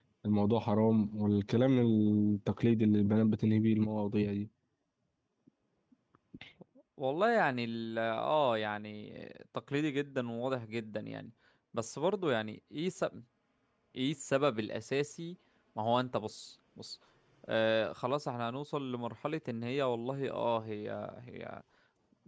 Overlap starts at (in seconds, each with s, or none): none